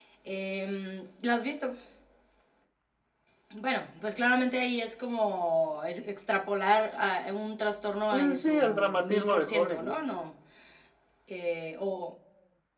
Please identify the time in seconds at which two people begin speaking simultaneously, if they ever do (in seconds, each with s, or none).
8.4 s